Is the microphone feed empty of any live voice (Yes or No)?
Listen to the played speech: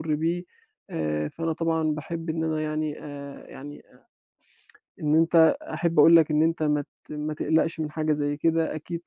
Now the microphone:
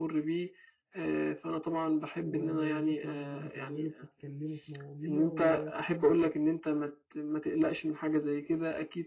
No